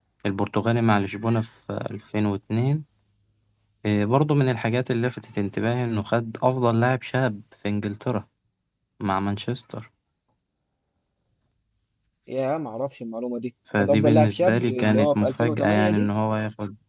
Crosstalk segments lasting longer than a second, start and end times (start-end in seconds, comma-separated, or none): 13.8-16.1